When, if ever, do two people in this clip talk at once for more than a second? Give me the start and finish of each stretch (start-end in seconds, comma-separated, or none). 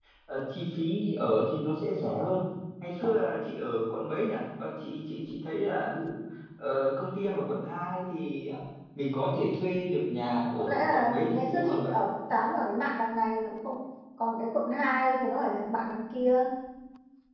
10.6-11.9